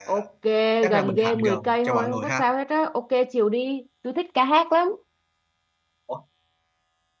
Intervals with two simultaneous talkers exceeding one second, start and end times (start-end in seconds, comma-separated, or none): 0.9-2.5